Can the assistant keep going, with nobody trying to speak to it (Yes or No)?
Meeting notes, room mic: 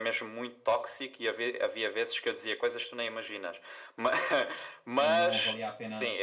No